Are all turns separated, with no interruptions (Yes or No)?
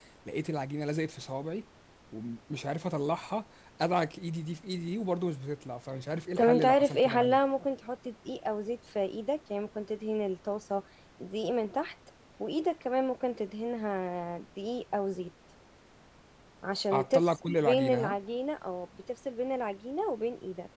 No